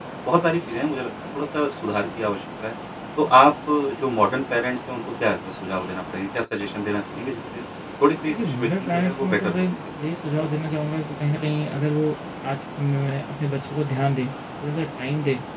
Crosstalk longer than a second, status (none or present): present